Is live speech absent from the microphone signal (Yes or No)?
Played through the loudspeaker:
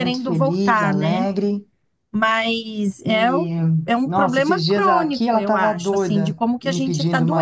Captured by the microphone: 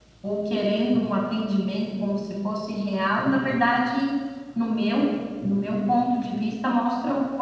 No